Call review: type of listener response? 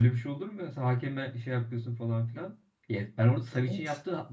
listening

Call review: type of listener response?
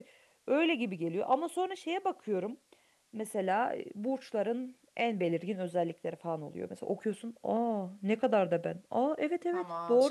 taking over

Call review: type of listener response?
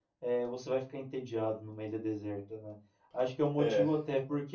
listening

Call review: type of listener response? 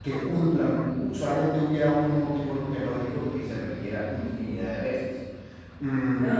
taking over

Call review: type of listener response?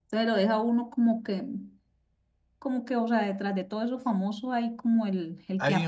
taking over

